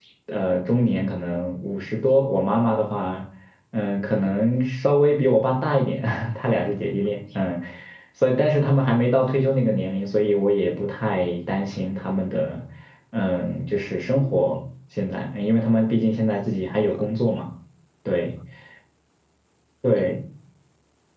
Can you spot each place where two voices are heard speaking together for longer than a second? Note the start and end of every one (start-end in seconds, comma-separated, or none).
none